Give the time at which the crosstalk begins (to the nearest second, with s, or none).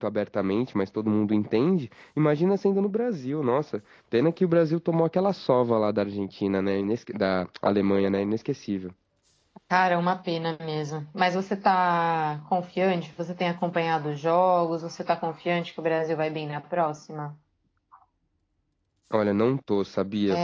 none